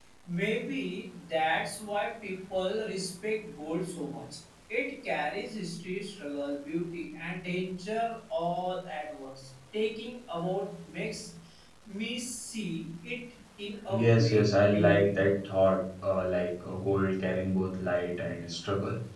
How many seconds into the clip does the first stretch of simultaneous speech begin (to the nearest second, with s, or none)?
14 s